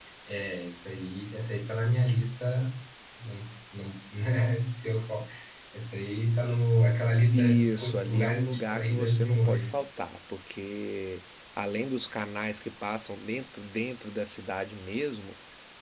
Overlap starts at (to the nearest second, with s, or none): 7 s